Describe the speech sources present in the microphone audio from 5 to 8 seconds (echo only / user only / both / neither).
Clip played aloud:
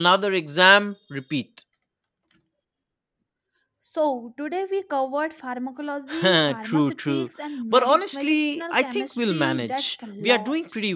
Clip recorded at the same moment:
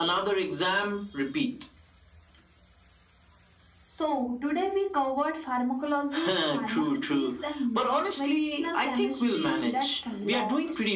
echo only